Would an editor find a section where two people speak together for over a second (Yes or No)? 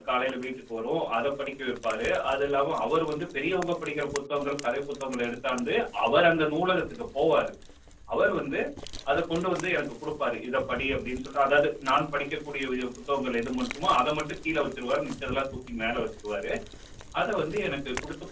No